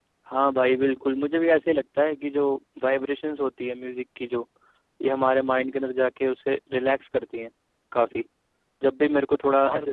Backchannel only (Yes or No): Yes